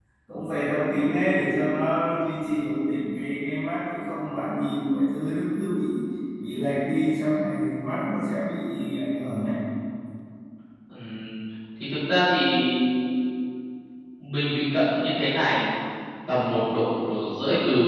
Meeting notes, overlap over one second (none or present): none